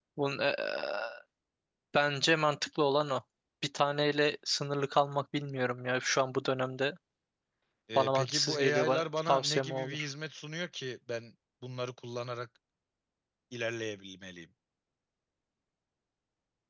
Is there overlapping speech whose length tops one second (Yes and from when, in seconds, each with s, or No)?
Yes, from 8.0 s